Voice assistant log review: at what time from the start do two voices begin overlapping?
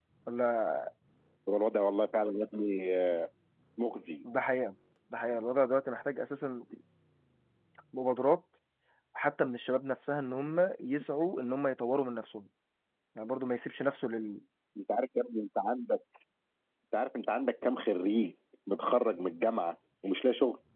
none

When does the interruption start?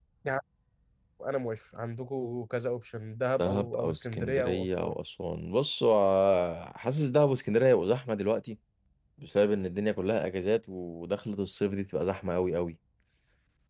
3.4 s

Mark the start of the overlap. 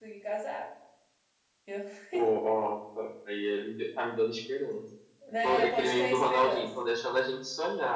5.4 s

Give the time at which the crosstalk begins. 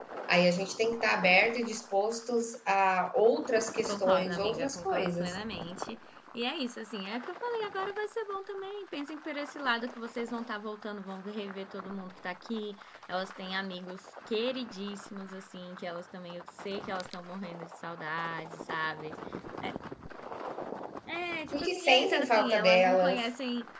3.9 s

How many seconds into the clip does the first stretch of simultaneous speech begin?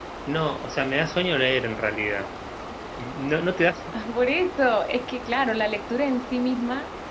none

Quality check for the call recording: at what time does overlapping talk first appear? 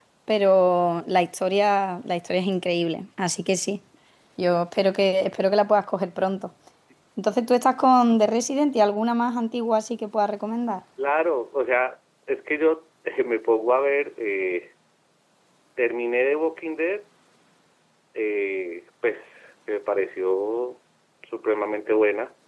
none

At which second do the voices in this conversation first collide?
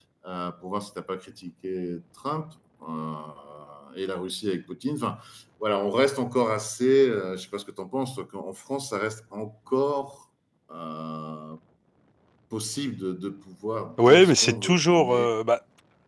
14.0 s

